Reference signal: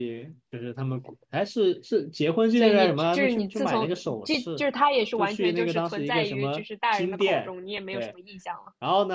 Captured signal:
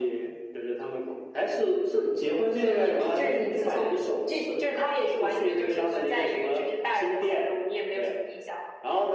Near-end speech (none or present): none